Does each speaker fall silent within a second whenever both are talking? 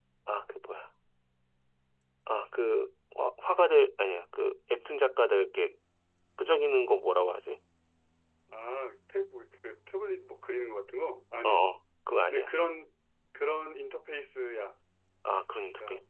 Yes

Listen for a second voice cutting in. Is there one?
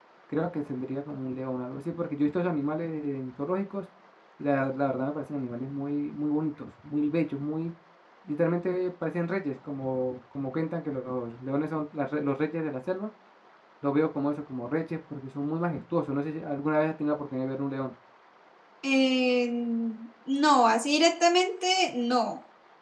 No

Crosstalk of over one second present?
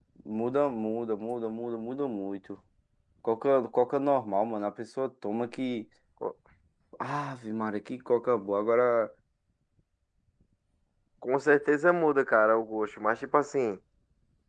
No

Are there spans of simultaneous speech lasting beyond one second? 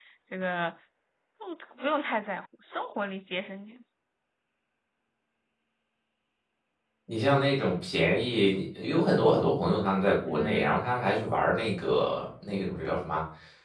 No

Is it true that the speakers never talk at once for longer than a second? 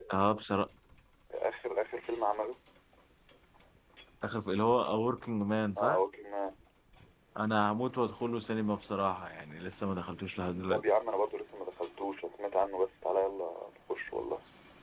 Yes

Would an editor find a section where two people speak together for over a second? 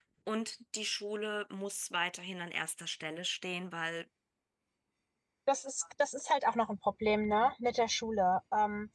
No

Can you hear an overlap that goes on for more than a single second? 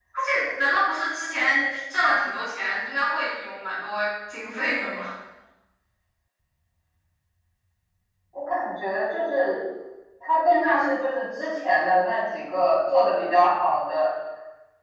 No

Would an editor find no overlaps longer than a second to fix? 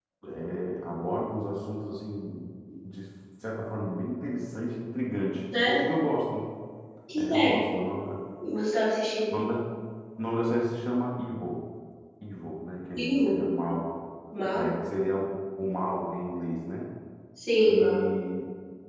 Yes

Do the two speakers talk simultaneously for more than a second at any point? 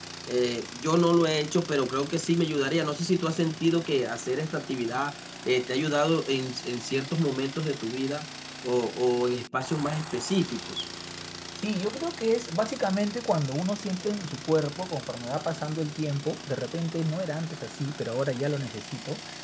No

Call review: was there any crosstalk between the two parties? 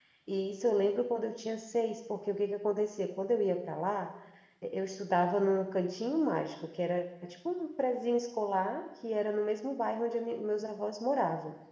No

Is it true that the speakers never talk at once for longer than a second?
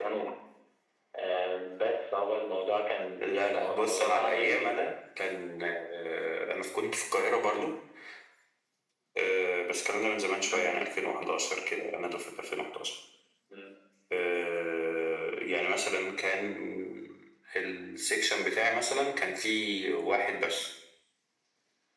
No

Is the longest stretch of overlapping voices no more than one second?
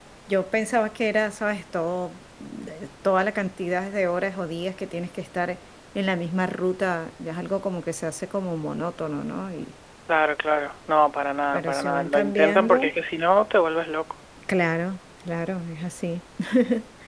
No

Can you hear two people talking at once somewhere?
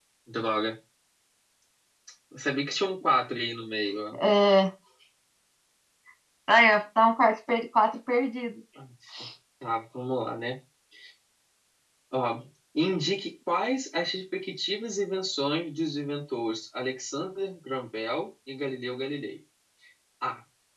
No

